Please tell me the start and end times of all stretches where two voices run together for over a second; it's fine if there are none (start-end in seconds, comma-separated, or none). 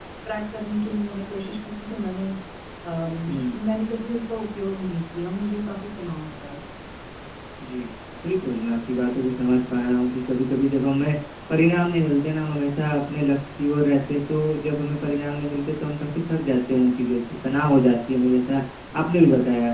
none